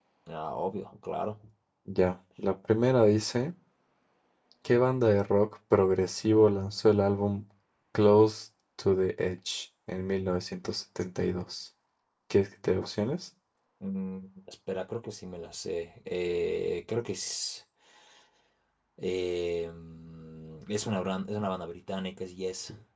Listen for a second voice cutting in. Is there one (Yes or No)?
No